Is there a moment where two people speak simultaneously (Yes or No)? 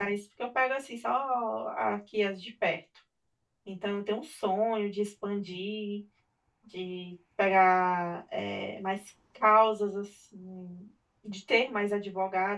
No